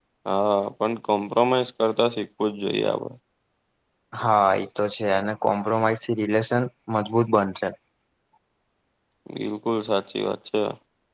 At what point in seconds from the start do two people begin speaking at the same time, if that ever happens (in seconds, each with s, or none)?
none